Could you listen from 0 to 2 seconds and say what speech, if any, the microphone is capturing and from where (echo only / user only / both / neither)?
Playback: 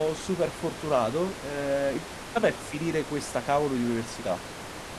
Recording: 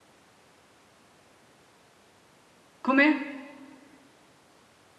neither